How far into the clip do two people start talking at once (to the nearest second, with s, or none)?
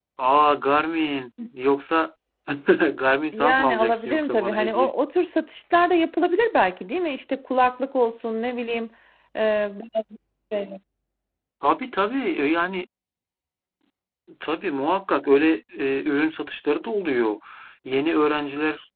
3 s